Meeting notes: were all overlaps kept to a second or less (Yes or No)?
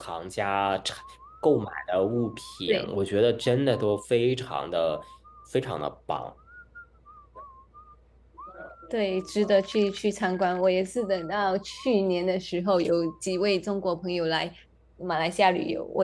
Yes